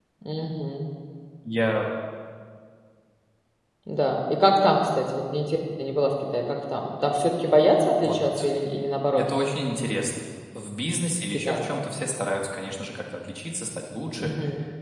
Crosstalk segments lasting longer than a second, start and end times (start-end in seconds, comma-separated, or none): none